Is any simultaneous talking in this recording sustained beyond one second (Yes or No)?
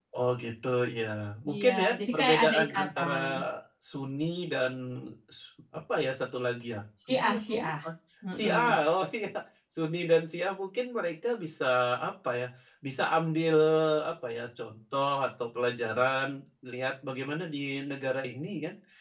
Yes